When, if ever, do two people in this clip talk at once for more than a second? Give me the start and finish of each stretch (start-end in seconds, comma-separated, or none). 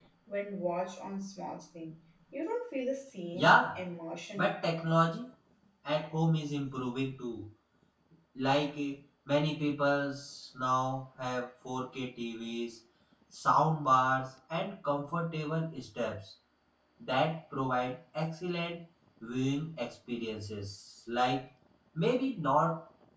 none